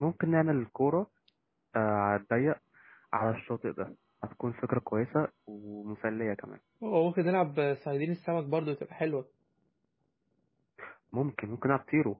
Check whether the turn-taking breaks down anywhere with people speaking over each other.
No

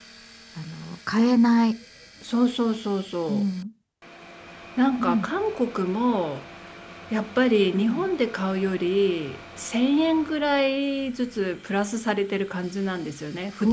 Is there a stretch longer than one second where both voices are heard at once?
No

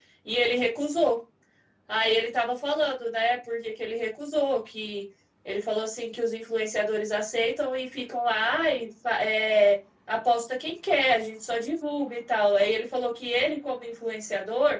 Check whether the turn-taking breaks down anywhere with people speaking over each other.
No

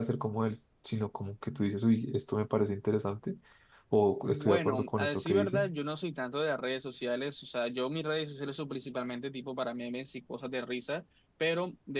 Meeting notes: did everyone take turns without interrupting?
No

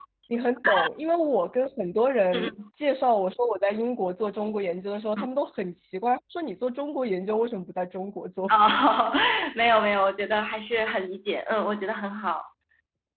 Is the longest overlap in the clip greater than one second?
No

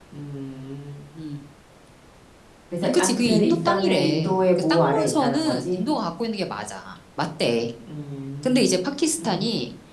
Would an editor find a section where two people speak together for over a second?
Yes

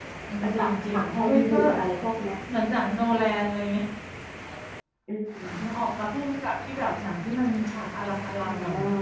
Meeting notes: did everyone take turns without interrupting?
No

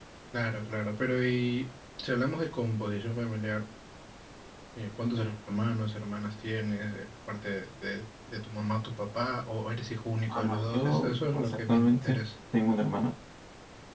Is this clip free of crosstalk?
No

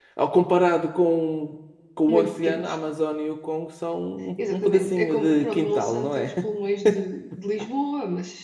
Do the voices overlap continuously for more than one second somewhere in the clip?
Yes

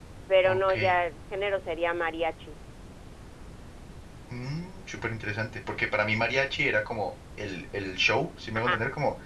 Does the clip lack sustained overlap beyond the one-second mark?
Yes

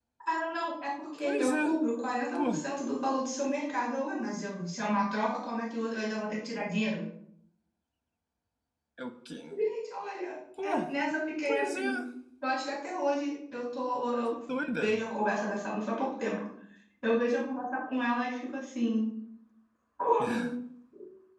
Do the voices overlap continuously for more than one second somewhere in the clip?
No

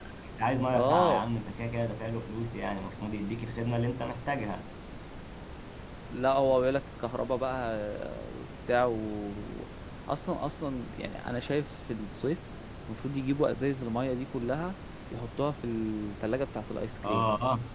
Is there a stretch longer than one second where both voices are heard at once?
No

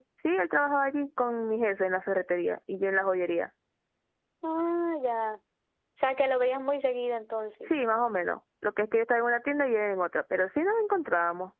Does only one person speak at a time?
Yes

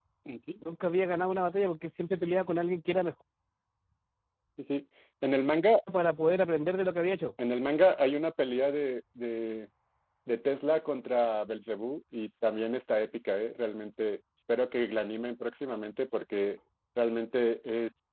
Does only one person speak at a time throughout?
Yes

